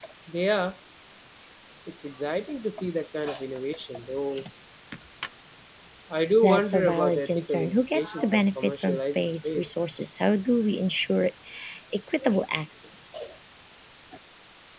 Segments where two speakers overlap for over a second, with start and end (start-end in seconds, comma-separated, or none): 6.4-9.8